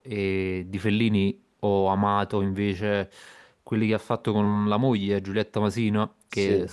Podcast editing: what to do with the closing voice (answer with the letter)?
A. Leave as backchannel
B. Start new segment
A